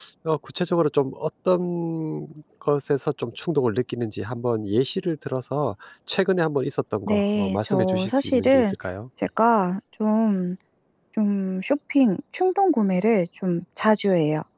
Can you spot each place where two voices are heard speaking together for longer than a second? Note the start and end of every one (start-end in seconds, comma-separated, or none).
7.1-8.8